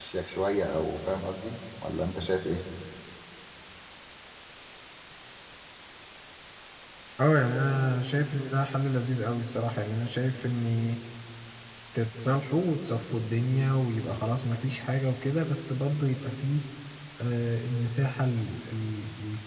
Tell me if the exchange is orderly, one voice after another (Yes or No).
Yes